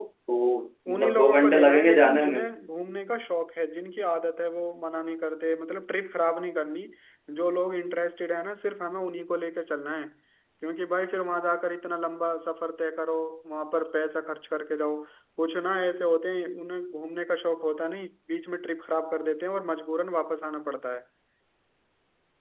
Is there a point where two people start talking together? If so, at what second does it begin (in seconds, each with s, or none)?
0.9 s